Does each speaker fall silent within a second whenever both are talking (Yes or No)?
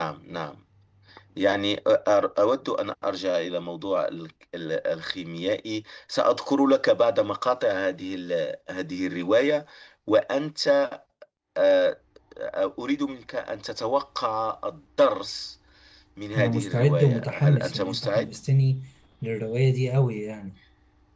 No